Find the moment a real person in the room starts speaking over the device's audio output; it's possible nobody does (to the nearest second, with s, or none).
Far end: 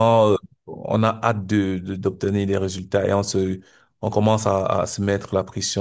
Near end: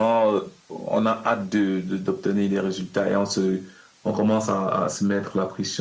none